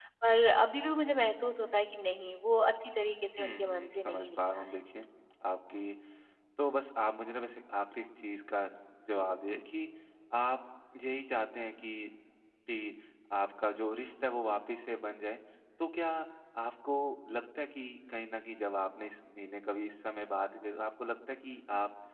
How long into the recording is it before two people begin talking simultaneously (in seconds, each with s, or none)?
3.4 s